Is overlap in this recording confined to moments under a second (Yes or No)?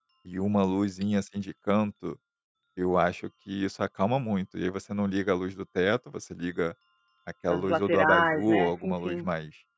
No